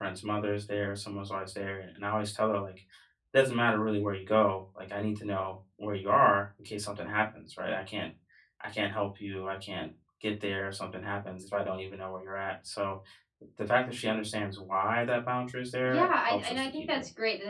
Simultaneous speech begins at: 15.8 s

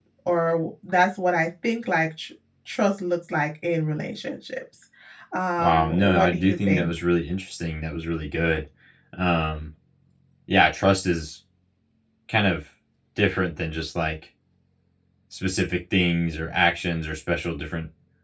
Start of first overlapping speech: 5.6 s

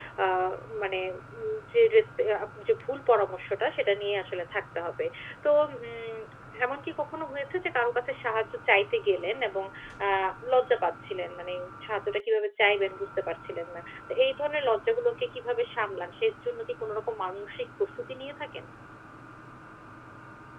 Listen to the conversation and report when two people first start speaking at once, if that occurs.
none

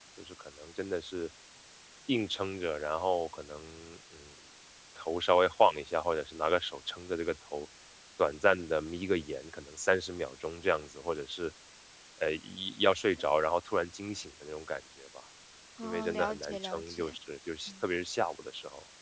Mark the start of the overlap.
15.8 s

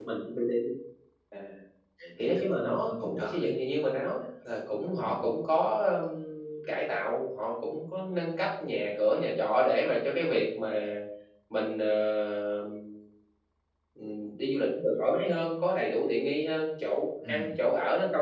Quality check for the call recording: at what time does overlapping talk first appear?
2.2 s

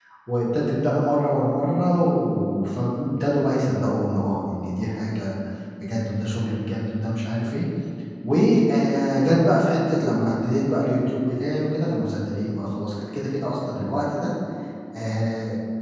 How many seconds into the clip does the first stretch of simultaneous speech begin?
none

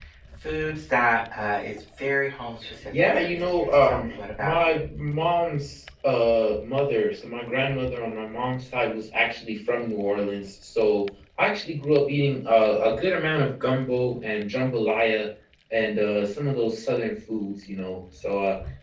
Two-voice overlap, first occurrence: 2.9 s

